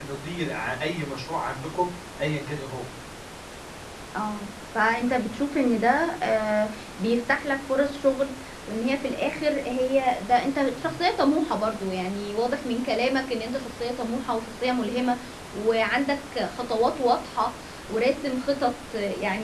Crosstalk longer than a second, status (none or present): none